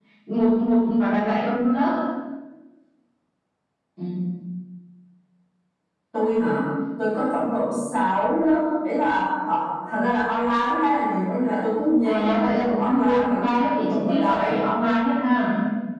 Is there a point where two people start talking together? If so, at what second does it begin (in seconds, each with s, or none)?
12.0 s